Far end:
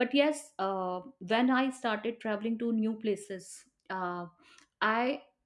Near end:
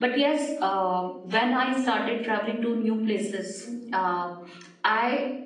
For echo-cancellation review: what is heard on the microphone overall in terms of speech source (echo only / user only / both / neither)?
both